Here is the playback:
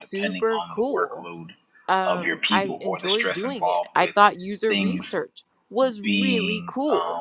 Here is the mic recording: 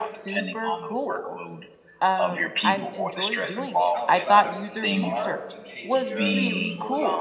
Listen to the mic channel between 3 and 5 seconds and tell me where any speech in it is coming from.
both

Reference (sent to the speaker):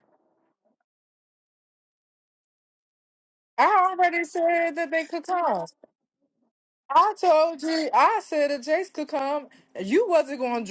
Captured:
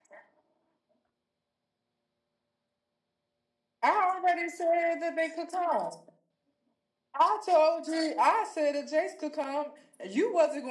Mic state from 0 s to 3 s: neither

